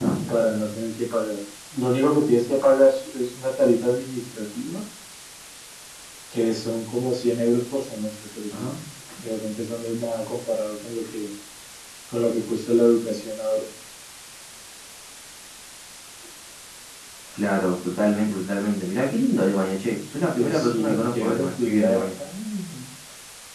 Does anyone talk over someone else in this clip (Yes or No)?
Yes